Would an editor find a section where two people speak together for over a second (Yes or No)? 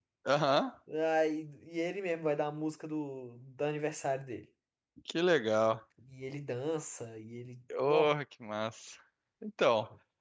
No